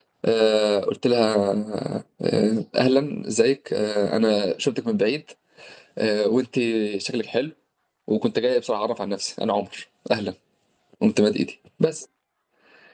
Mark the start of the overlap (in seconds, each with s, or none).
none